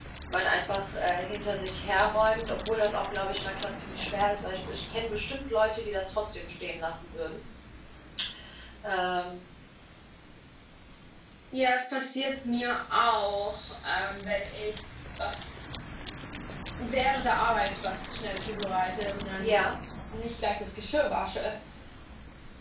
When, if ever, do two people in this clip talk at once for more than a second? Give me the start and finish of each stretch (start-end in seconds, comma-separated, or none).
none